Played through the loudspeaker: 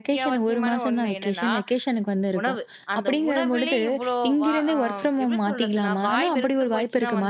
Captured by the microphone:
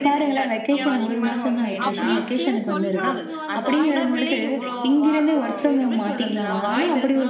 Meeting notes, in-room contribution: present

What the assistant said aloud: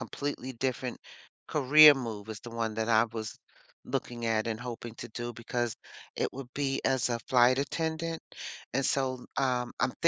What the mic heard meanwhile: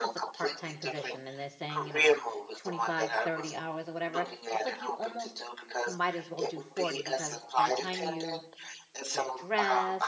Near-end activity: present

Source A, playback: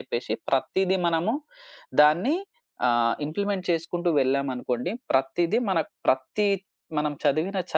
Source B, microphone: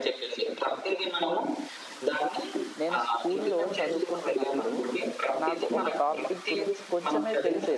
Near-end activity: present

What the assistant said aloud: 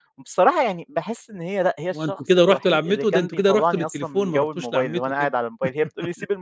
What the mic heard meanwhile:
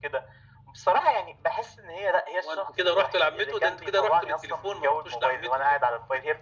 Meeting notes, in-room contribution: none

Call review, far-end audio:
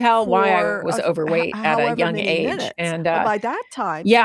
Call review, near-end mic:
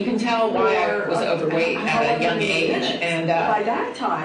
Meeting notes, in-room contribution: none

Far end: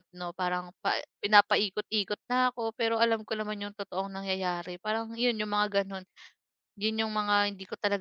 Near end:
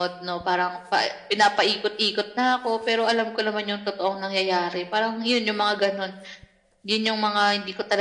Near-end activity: none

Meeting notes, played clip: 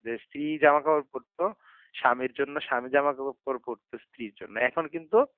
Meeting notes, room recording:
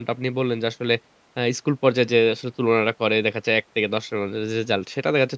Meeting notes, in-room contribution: present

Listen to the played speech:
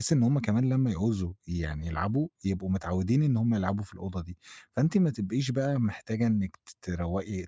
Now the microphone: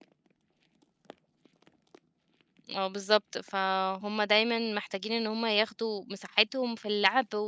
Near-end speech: present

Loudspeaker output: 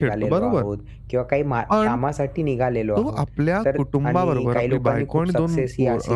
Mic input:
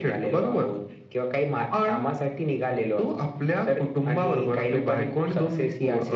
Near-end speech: none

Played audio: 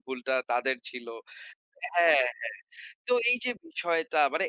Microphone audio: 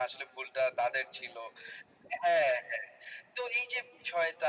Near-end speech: none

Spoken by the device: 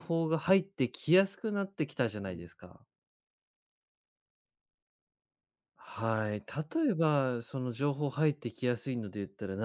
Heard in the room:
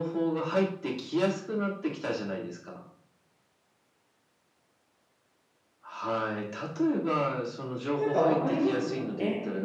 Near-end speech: present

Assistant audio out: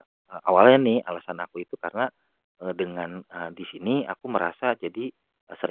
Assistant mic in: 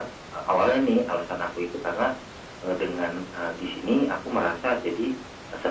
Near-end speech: none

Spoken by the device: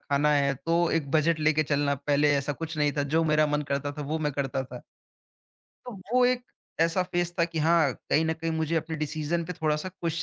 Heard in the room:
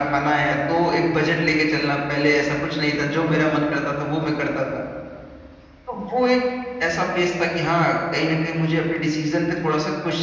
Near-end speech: none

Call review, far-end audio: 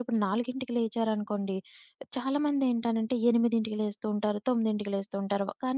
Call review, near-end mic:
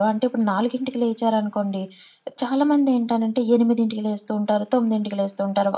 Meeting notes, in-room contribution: none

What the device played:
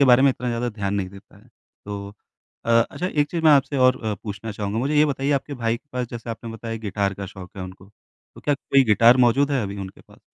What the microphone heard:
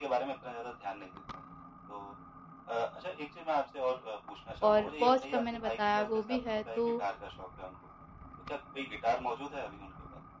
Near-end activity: present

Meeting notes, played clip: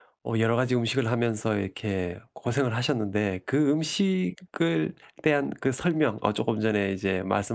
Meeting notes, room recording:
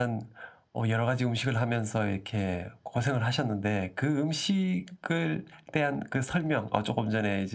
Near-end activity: none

